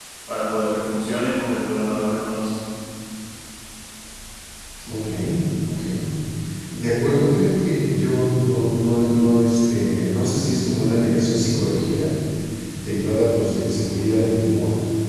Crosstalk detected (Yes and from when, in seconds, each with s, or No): No